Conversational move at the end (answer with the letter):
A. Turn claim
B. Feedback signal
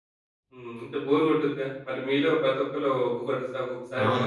A